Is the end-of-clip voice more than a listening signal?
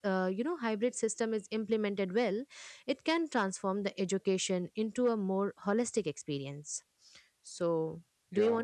Yes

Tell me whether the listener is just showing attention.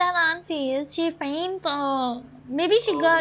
No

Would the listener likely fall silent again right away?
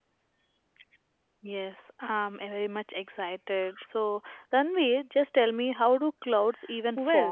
No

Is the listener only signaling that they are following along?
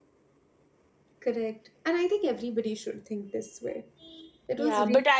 No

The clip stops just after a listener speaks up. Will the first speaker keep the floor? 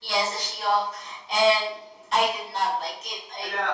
No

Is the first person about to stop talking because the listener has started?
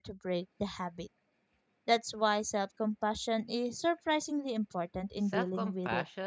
Yes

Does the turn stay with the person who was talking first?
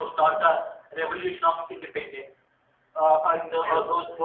Yes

